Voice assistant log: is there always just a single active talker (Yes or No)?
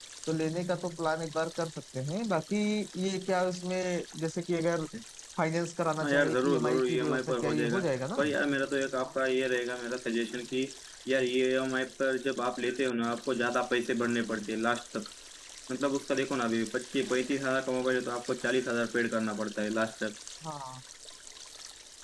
No